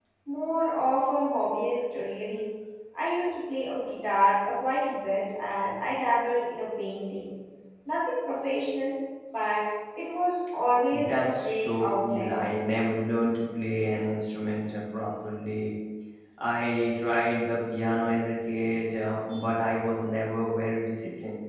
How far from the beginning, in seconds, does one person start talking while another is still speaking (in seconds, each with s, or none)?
10.9 s